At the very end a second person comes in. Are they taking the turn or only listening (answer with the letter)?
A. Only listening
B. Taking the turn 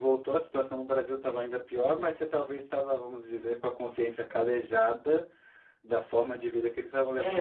B